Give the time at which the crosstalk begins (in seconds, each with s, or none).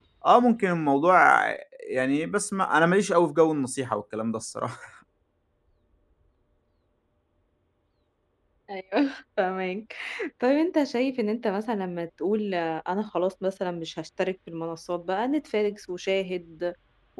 none